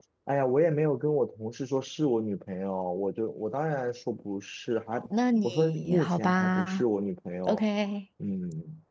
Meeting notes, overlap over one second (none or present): present